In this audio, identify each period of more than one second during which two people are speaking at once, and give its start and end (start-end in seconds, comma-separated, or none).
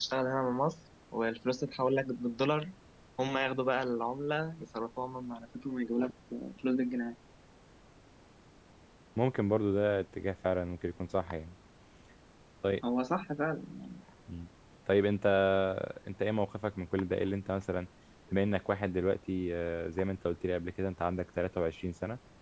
none